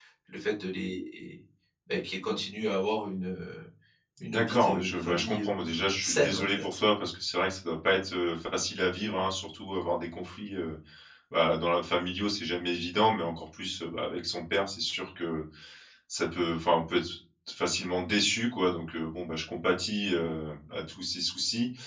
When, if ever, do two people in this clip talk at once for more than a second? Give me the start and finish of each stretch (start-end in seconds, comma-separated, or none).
4.2-6.8